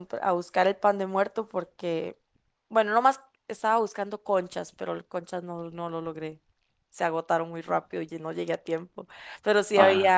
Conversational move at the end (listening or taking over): listening